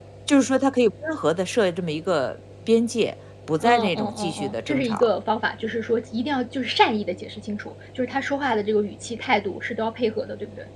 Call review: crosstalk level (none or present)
present